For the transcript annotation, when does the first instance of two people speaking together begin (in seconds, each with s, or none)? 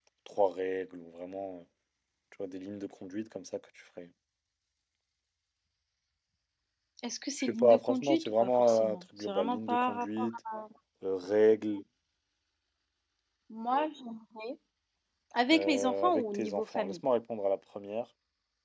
7.4 s